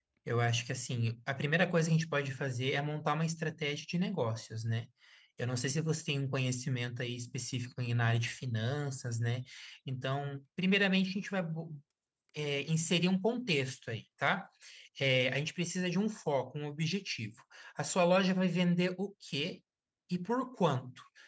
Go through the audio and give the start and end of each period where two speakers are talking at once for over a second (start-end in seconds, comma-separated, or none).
none